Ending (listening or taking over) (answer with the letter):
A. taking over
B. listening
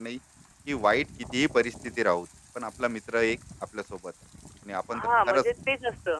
A